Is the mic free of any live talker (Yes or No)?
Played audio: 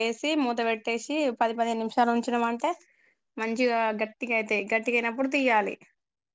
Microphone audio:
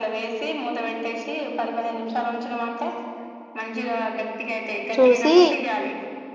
No